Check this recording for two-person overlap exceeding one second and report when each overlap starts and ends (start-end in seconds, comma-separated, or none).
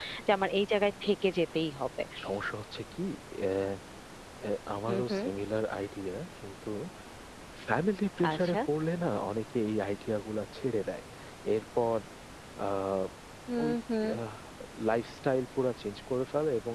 none